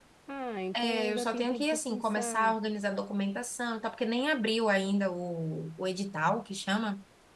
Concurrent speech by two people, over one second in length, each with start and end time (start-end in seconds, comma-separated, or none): 0.7-2.6